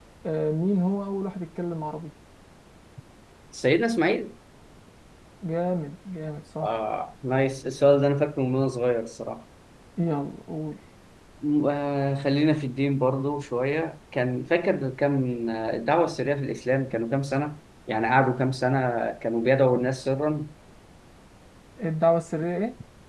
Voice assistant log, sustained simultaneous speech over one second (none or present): none